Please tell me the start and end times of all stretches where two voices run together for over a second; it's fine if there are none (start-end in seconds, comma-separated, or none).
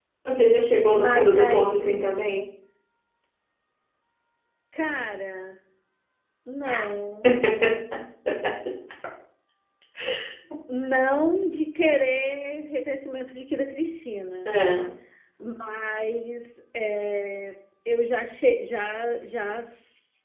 0.9-2.1